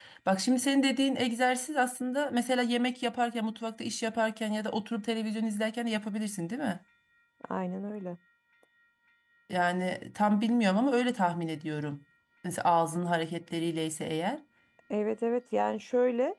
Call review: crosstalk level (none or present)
none